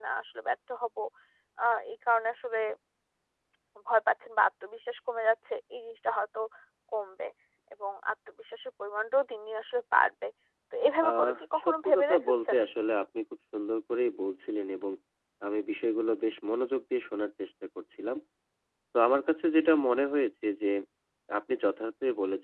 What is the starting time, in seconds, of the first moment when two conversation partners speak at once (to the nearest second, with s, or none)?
11 s